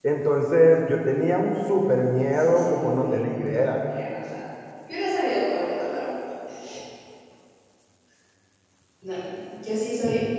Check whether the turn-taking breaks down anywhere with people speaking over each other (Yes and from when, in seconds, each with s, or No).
Yes, from 2.3 s